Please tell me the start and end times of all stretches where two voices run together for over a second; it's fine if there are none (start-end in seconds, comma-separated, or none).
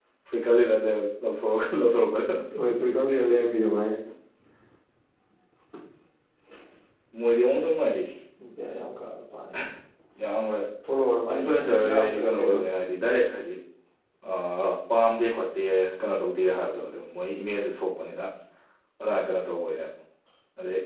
11.3-12.6